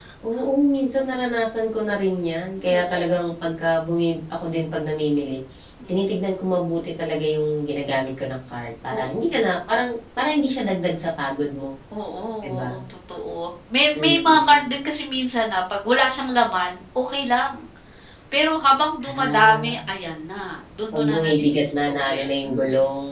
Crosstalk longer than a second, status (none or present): present